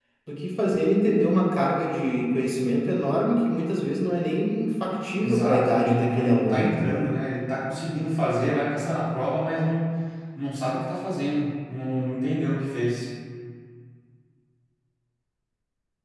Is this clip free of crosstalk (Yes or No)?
No